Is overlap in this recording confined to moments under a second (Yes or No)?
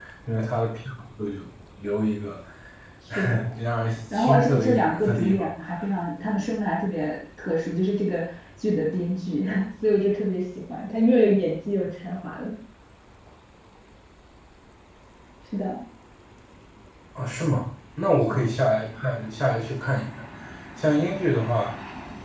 No